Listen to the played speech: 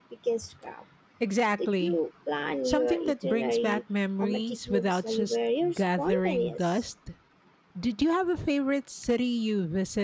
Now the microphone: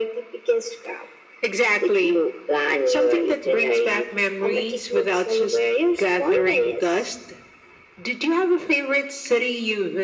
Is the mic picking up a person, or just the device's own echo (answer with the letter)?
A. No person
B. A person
A